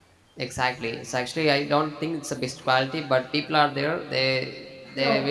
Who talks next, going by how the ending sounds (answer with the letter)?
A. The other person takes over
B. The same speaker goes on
B